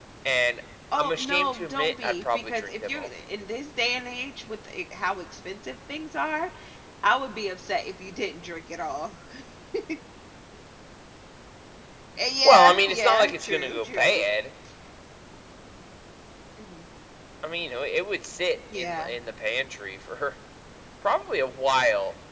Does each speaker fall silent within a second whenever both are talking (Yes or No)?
No